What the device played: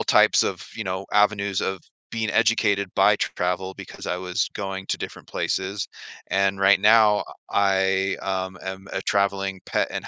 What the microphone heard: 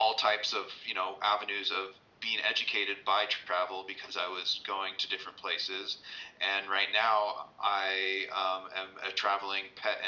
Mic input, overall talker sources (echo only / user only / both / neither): echo only